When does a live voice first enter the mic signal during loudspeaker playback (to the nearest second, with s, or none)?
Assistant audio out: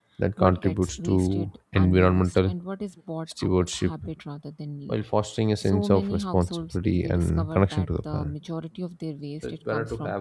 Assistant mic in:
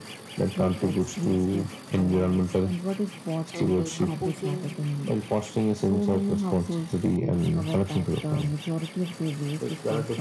4 s